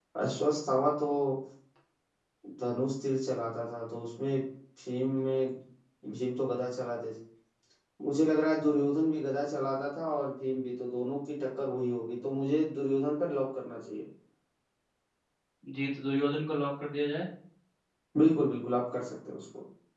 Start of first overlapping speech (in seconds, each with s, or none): none